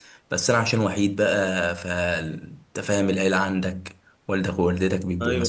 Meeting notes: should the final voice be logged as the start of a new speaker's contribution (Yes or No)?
No